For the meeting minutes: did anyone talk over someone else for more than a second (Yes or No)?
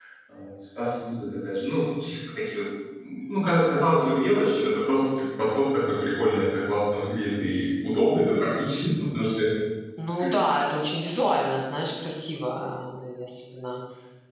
No